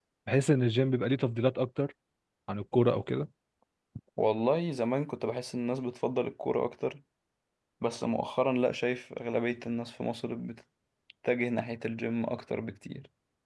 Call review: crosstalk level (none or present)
none